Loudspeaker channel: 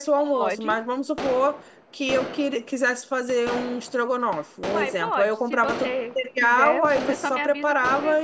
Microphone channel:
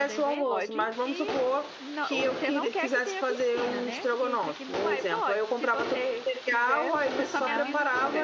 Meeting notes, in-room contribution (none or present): present